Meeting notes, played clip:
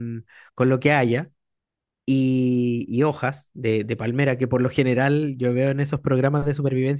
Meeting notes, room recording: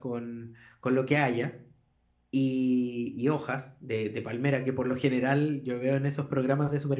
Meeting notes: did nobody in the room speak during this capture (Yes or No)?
Yes